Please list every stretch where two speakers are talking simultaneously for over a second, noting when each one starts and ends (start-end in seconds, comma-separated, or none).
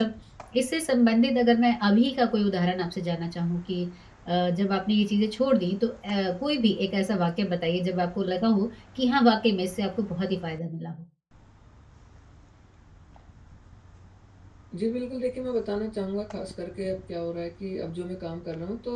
none